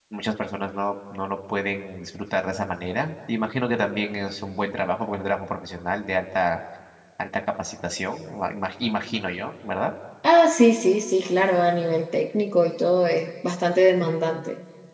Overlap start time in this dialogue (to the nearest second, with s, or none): none